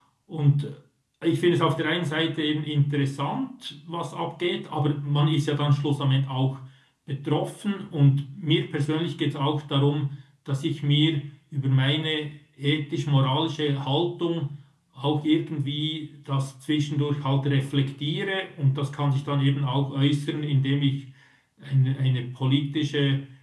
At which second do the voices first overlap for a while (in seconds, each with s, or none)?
none